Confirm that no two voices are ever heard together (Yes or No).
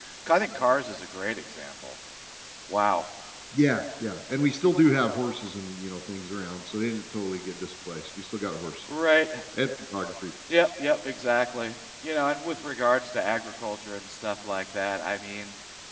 Yes